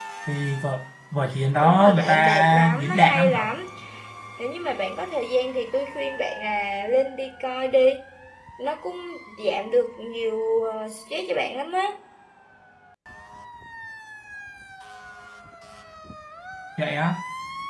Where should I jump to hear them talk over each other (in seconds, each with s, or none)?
1.6 s